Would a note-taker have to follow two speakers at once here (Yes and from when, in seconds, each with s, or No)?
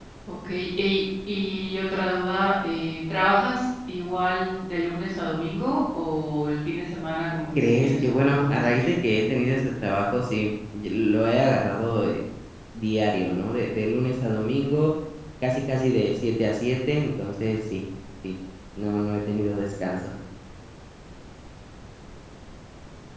Yes, from 7.6 s